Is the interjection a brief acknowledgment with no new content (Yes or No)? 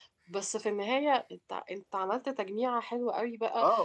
No